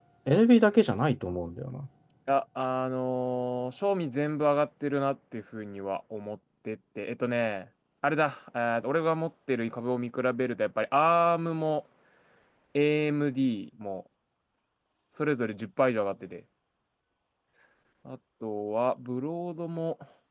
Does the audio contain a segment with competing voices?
No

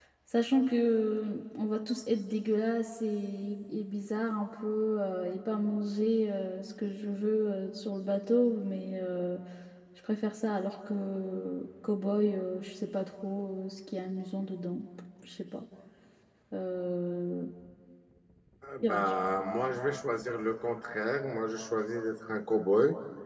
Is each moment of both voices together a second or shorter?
Yes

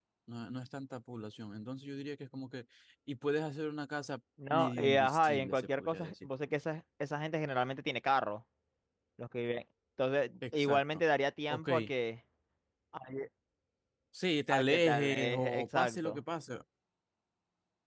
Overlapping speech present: Yes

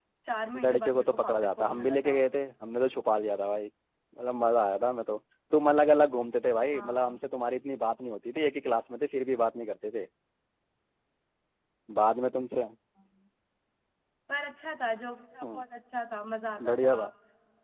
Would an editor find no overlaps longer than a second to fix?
No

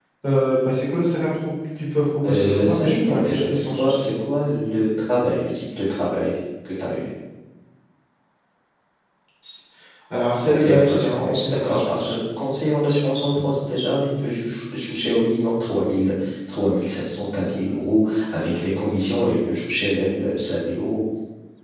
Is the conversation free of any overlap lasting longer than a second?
No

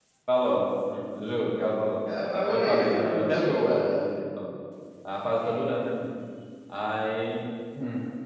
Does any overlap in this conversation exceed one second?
Yes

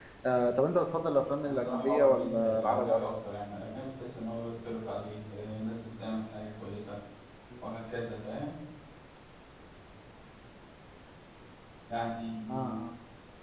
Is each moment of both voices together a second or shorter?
No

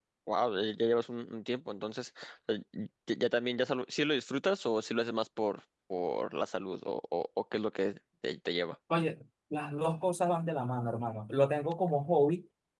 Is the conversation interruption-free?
Yes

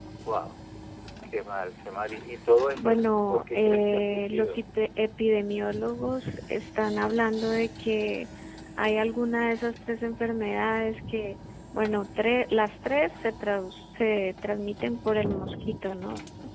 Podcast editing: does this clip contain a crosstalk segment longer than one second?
Yes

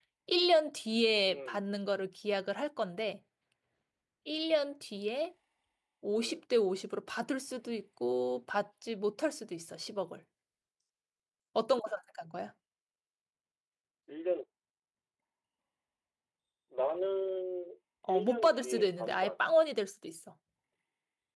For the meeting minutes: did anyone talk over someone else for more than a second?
Yes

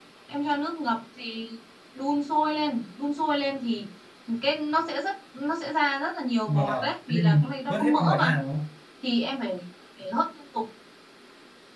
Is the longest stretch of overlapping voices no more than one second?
No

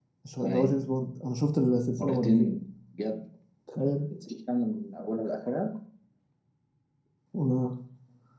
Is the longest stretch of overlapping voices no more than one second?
Yes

